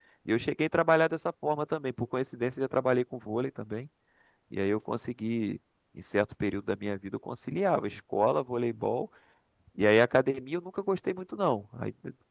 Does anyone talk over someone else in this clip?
No

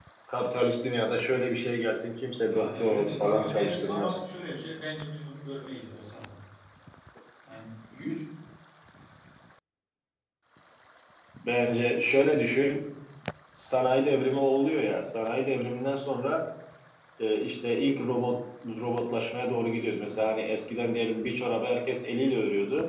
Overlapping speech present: Yes, from 2.5 s

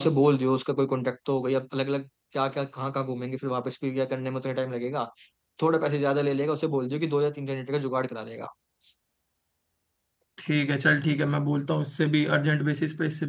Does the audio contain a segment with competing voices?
No

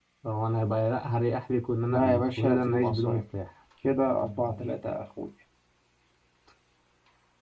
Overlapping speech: Yes, from 1.9 s

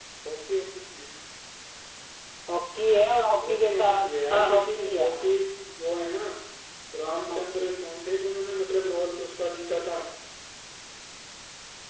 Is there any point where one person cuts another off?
Yes, from 3.5 s

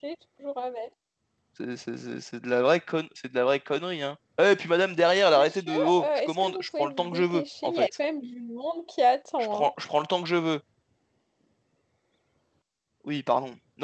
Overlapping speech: Yes, from 5.3 s

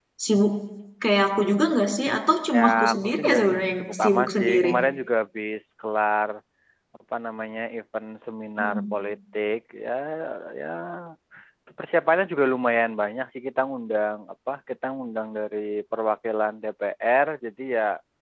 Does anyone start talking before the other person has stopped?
Yes, from 2.5 s

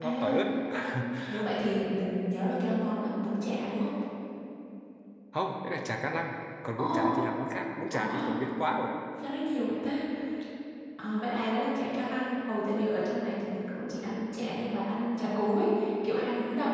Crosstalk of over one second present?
No

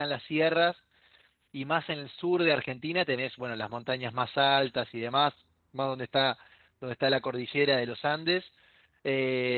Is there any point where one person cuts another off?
No

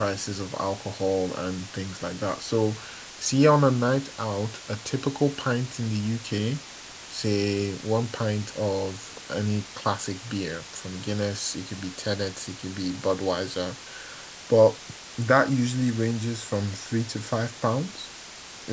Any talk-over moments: No

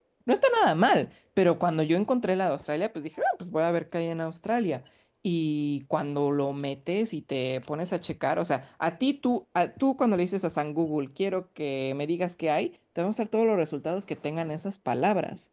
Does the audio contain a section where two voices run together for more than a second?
No

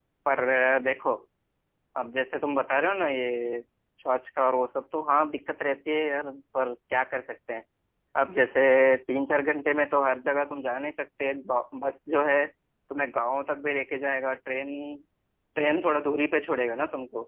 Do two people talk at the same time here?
No

